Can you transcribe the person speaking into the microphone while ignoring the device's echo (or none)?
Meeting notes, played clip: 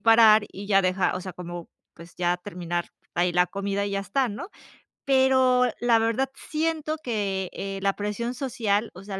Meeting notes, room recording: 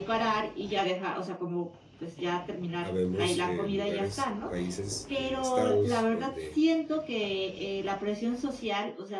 habemos, eh, lugares, países, estados, donde